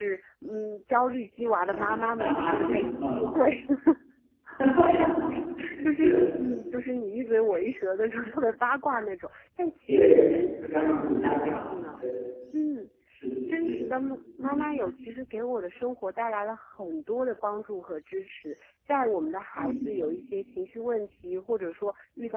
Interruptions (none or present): present